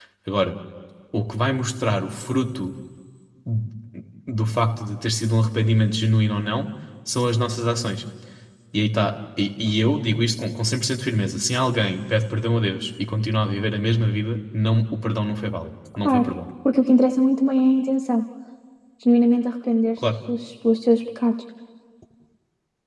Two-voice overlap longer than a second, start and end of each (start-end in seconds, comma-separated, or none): none